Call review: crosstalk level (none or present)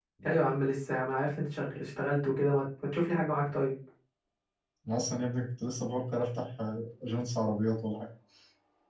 none